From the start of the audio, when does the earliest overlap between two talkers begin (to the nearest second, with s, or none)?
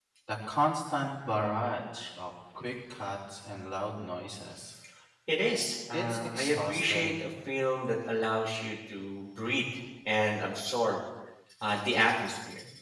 6 s